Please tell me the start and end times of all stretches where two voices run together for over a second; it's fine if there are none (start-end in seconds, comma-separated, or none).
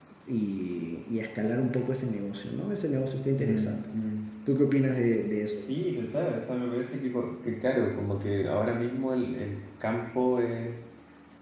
none